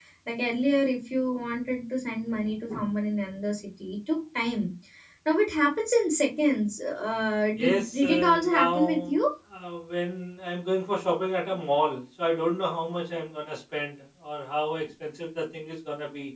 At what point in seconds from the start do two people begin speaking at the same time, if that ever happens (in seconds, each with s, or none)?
7.6 s